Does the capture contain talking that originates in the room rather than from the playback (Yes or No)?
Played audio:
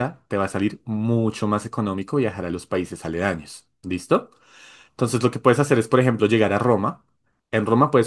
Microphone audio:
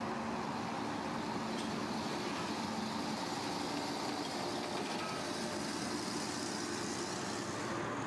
No